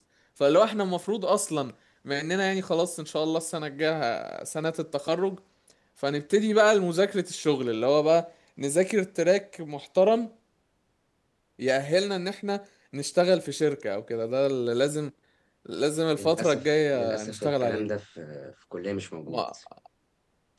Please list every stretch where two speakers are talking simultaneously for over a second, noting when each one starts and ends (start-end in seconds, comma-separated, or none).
16.2-17.9